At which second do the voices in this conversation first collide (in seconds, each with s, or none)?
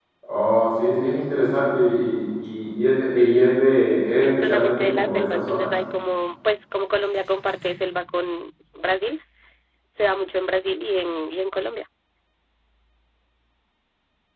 4.1 s